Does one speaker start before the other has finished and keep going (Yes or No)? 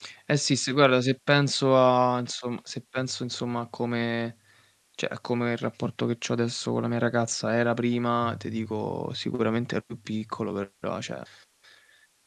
No